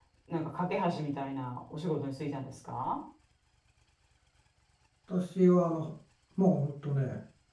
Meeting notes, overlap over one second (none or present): none